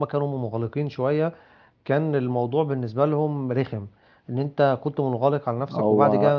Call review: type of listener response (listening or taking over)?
listening